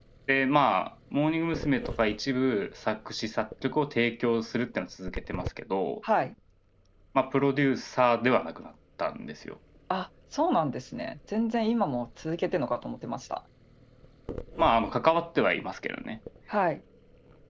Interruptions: none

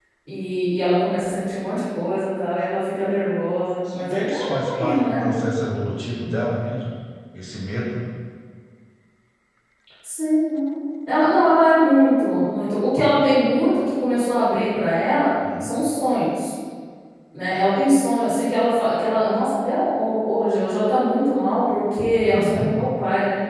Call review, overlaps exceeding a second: present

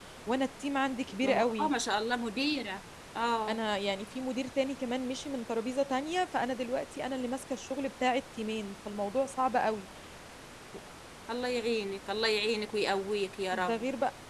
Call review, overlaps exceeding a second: none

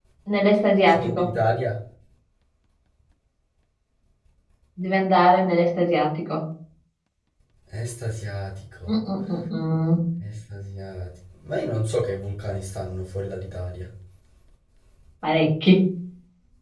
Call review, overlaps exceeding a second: none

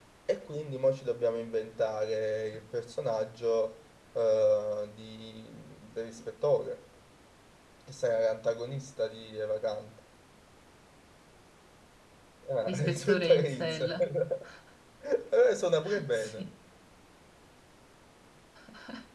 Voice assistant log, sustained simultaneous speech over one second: present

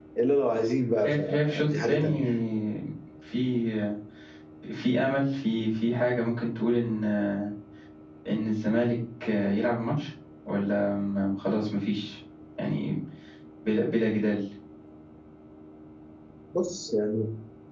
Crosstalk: present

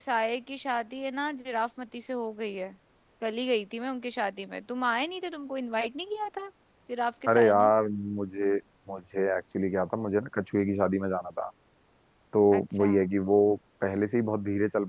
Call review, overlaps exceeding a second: none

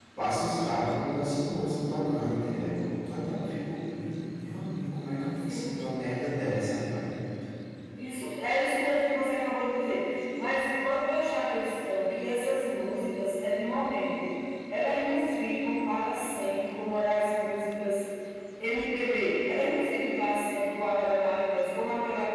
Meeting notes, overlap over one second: none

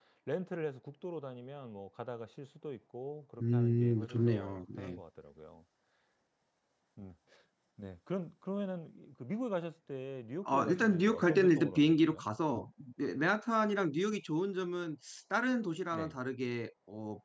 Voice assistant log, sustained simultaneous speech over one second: present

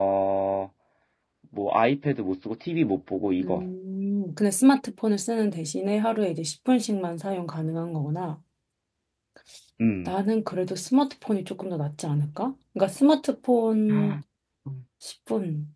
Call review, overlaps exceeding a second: none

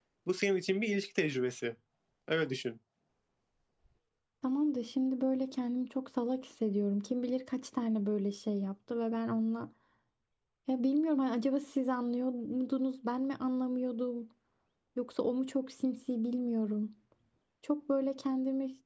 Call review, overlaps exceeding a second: none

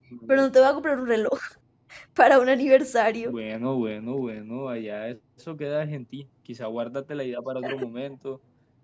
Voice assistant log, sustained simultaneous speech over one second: none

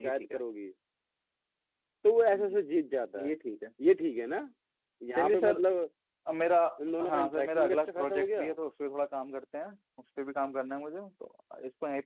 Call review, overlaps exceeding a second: present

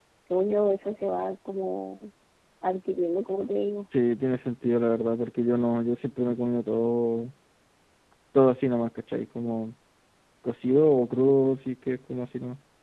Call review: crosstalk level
none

